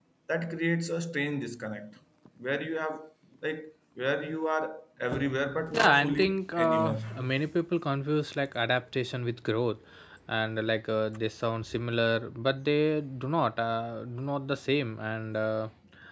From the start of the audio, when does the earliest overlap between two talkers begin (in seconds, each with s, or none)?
5.7 s